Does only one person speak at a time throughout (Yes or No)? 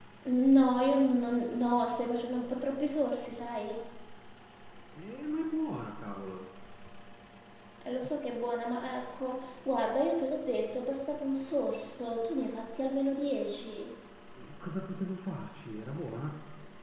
Yes